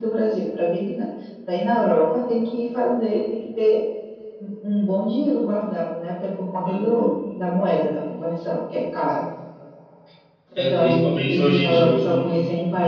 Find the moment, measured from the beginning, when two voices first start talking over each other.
10.7 s

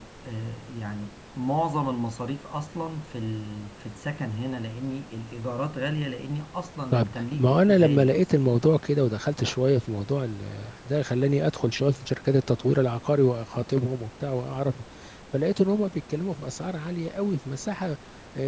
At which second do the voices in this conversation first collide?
6.9 s

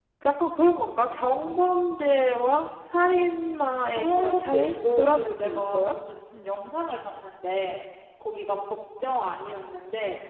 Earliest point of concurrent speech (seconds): 4.0 s

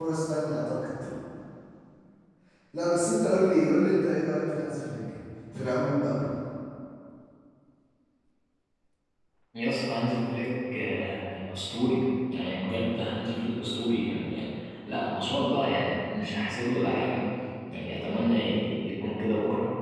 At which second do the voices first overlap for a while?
none

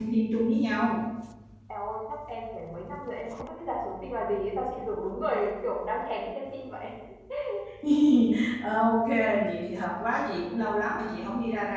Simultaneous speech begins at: none

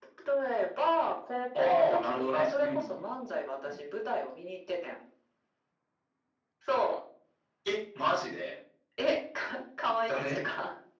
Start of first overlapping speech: 1.5 s

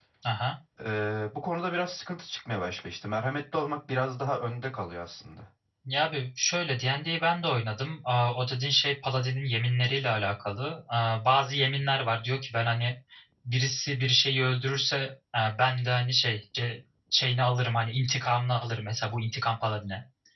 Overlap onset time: none

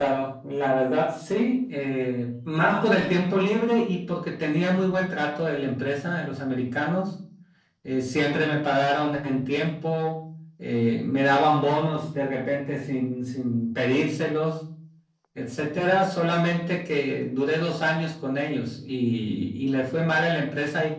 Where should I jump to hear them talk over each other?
none

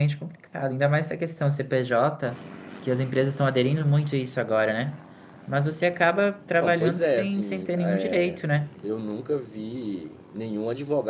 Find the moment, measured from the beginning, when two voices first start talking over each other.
6.6 s

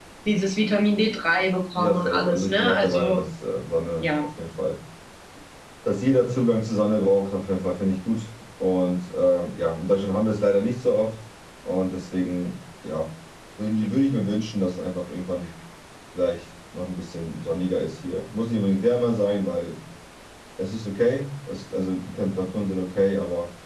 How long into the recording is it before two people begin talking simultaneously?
1.8 s

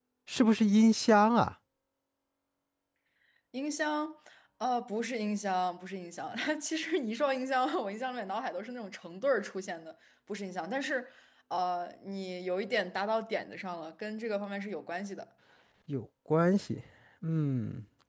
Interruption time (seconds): none

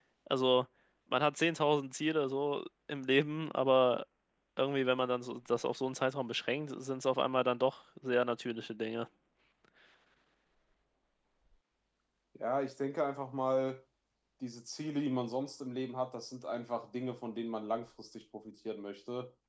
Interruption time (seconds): none

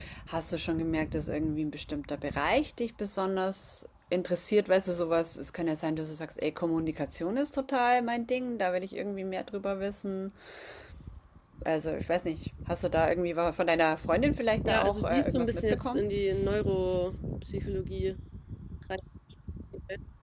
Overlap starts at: 14.7 s

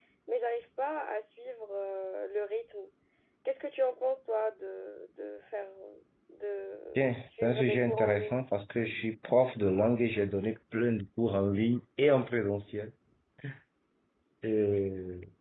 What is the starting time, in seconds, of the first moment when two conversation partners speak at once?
7.0 s

